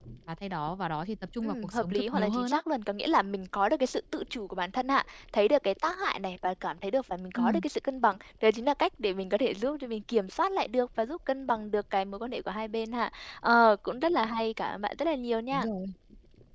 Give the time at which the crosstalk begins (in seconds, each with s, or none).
1.4 s